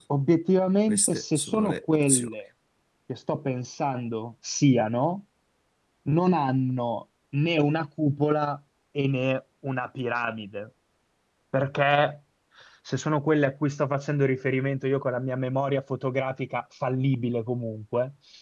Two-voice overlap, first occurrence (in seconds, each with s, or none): 0.9 s